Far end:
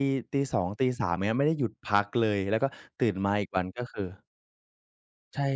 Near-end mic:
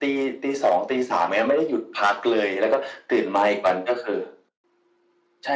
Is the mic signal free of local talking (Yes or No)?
Yes